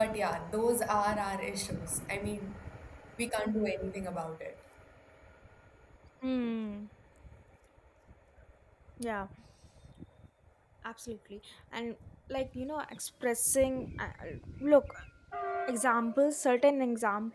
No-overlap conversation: Yes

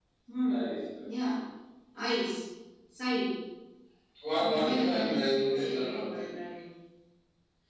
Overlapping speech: Yes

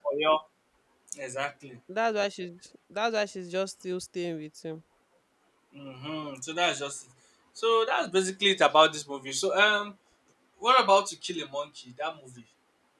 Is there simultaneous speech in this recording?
No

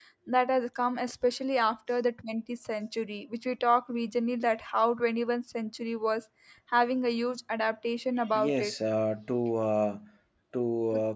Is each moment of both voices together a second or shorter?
Yes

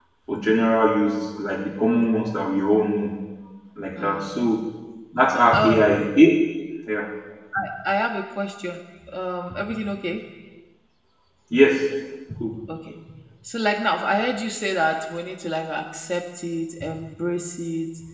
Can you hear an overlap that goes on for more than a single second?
No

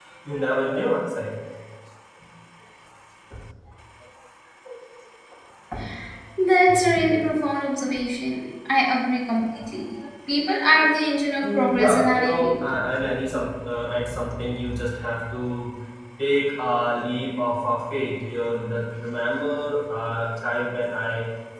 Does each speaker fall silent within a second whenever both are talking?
No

